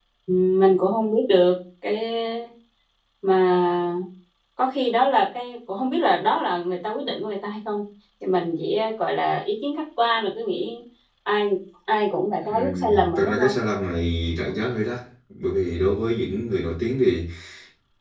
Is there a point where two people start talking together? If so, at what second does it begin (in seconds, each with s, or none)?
12.3 s